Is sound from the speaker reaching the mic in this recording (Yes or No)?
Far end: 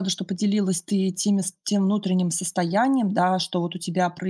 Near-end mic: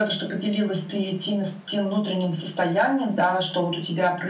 Yes